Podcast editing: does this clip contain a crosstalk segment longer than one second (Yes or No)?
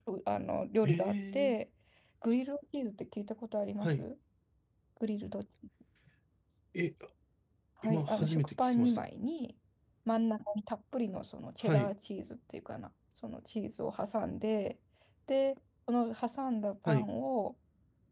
Yes